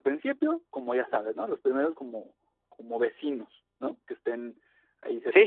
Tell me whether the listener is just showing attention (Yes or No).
No